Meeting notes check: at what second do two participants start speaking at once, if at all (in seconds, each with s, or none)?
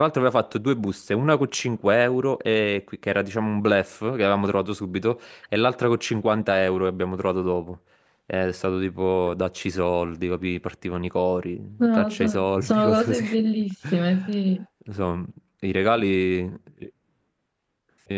11.8 s